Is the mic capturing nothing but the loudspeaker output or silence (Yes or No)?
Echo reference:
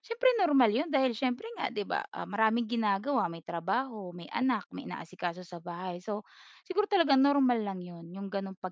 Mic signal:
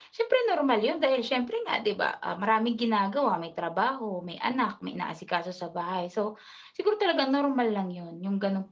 Yes